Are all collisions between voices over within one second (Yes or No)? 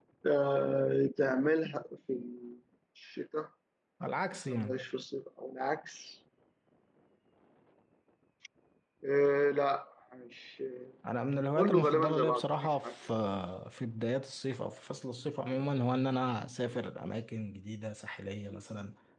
No